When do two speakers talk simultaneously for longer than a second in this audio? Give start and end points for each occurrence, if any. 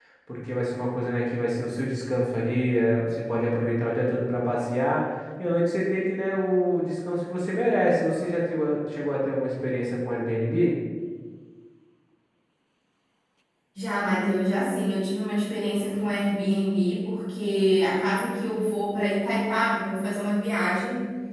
none

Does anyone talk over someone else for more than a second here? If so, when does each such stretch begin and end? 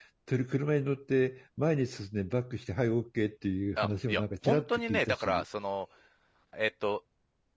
3.8-5.4

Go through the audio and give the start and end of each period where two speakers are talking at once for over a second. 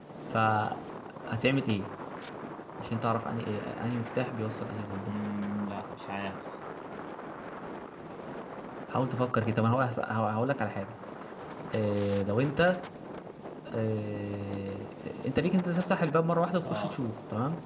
none

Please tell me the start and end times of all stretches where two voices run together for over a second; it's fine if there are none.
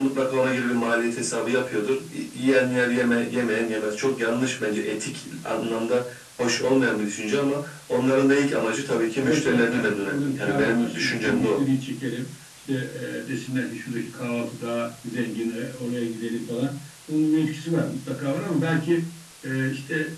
9.2-11.6

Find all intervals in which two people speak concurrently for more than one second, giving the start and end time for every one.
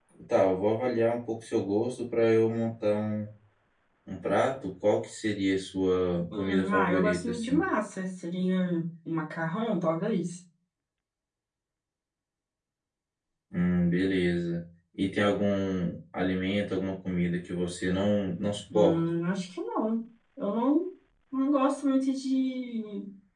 6.4-7.6

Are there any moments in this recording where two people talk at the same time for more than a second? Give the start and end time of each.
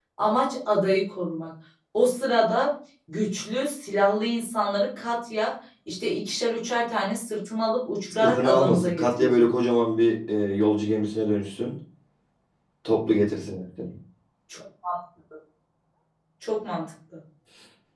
8.2-9.4

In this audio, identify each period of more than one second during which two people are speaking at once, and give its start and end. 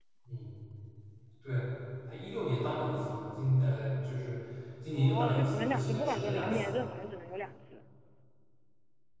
4.9-6.7

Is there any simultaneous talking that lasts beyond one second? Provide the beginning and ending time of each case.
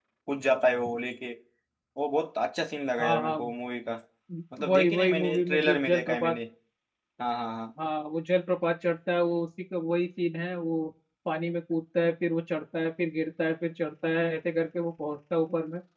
4.7-6.4

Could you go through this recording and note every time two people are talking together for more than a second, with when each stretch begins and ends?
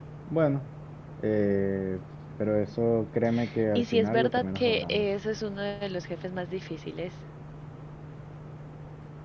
3.8-5.1

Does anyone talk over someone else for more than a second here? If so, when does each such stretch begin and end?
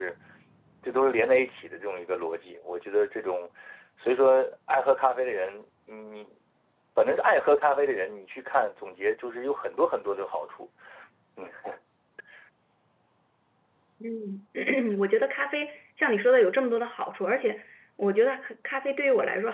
none

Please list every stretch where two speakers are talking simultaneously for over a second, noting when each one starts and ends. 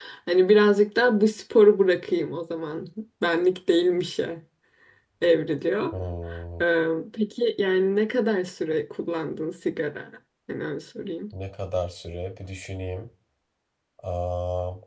none

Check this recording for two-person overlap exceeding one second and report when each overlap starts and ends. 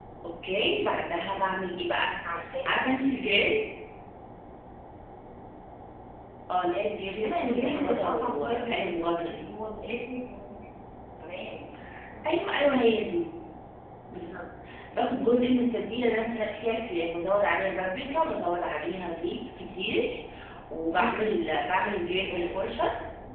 7.2-9.5

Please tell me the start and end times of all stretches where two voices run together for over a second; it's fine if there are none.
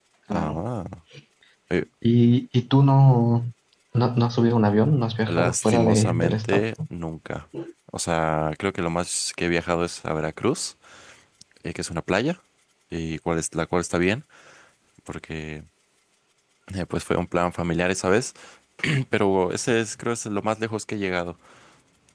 5.2-6.6

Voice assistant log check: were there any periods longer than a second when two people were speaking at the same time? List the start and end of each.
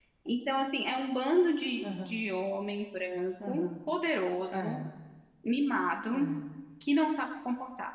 none

